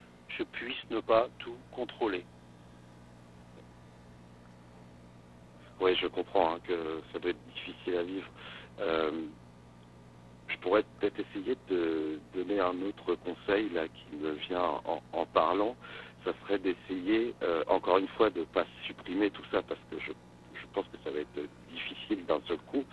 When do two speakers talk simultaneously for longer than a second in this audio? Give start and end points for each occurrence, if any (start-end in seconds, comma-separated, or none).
none